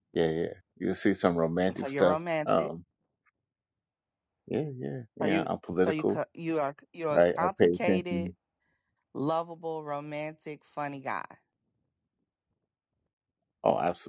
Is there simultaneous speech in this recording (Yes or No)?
Yes